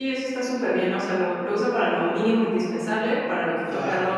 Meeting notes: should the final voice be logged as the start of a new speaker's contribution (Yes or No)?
No